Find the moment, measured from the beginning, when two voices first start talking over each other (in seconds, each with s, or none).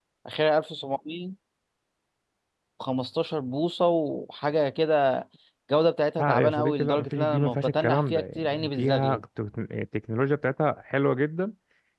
6.2 s